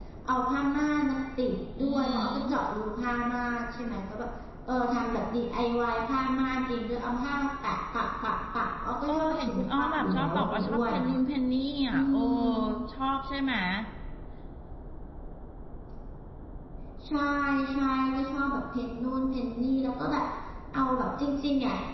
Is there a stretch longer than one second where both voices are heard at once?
Yes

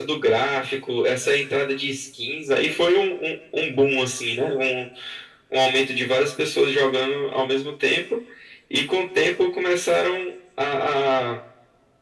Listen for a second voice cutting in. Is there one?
No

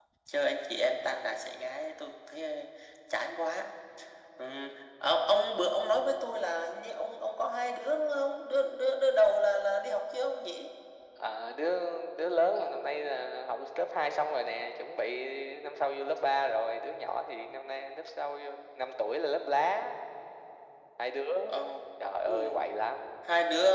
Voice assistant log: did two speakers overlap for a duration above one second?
No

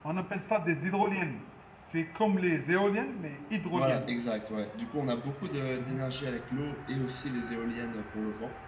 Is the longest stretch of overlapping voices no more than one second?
Yes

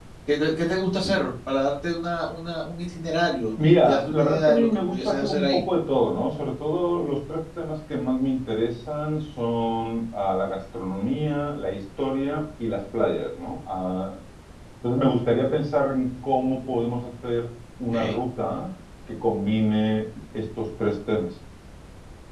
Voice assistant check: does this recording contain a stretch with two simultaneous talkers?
Yes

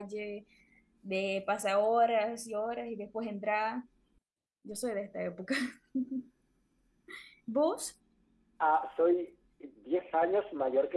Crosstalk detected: No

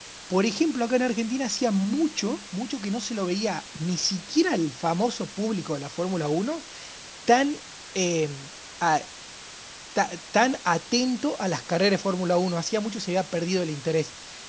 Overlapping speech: No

